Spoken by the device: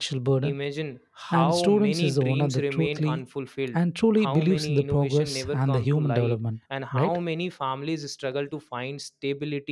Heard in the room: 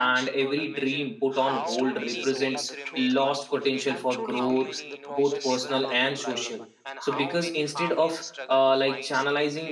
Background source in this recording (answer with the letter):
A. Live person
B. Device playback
B